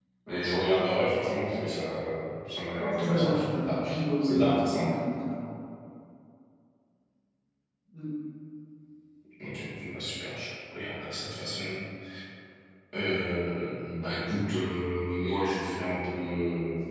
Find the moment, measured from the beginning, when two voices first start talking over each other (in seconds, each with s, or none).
2.8 s